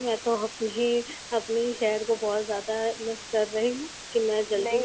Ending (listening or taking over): taking over